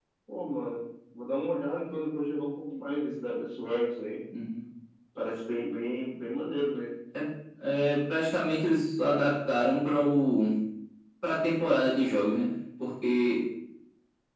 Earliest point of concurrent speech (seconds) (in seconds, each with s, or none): none